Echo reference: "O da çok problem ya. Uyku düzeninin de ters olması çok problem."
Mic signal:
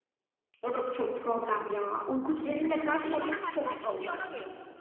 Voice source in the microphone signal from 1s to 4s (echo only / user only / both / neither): both